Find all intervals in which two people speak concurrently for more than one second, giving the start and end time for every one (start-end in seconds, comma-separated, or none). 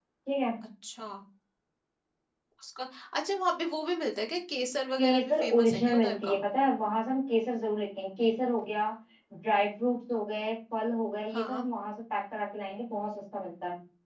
5.0-6.4